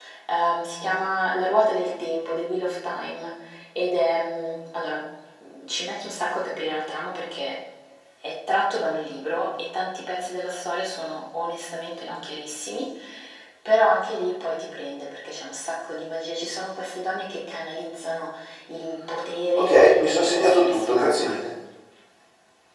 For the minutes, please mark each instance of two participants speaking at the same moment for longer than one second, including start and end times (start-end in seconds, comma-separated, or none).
19.6-21.3